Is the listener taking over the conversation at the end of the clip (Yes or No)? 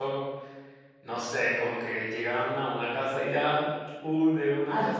Yes